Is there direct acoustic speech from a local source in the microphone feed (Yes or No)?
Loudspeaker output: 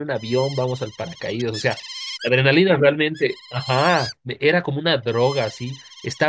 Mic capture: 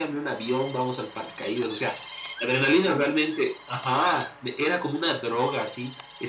No